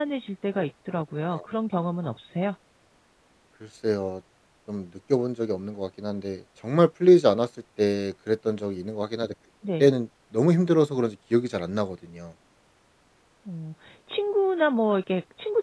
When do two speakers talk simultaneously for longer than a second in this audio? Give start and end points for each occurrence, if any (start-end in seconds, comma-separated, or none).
none